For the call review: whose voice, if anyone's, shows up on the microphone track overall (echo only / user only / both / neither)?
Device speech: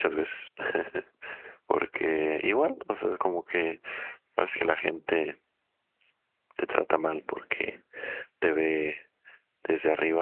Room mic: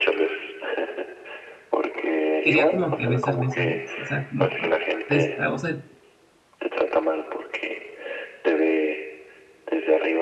both